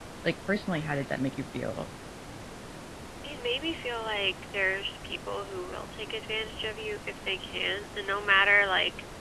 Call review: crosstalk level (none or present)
none